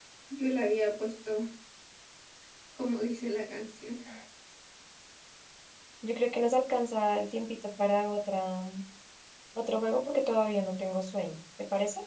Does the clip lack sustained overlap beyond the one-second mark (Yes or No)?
Yes